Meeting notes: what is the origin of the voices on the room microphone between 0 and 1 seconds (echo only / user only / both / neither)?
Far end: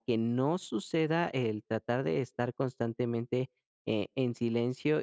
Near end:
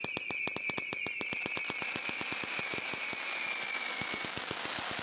neither